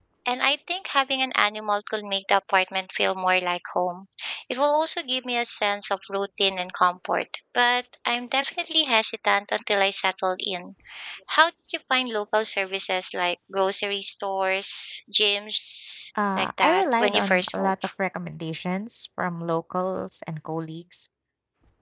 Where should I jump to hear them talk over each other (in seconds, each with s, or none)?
16.1 s